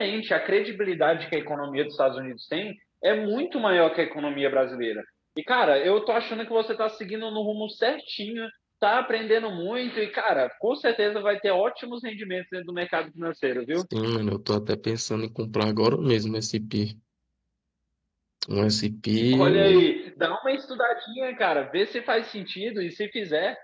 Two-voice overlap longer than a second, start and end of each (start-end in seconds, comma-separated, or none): none